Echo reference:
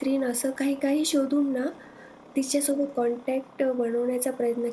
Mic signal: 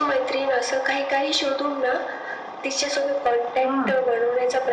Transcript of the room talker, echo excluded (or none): हां.